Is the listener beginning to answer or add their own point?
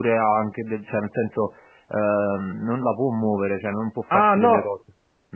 Yes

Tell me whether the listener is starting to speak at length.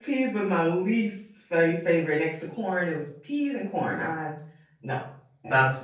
Yes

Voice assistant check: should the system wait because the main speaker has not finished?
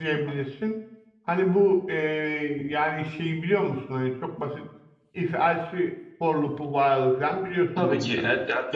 No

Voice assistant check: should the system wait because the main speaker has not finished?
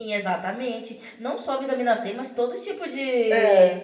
Yes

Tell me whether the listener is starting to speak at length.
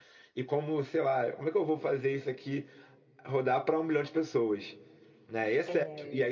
No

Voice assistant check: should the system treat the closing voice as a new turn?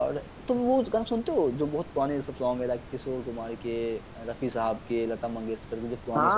Yes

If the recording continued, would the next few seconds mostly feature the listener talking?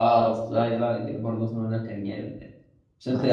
No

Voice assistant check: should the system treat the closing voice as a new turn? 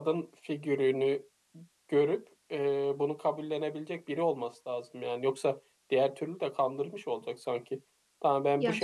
No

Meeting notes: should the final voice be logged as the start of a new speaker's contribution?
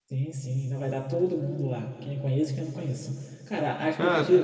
No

